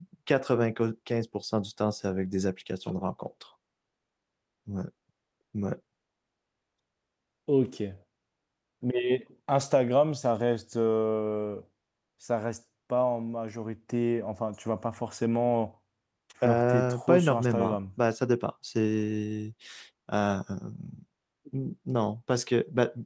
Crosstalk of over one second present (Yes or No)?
Yes